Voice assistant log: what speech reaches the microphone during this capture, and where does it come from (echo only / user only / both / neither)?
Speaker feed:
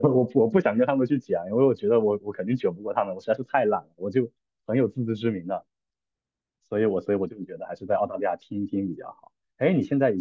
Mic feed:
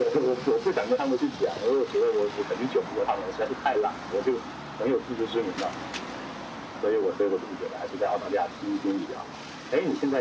echo only